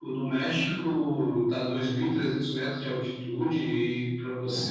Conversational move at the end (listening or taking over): listening